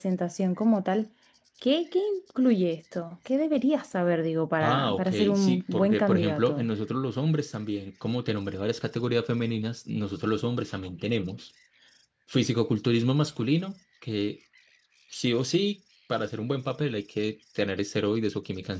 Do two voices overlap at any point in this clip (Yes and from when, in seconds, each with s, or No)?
Yes, from 4.6 s